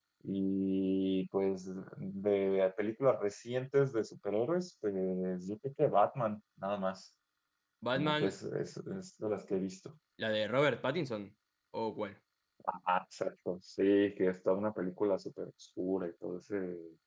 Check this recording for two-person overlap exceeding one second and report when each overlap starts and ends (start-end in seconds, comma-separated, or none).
none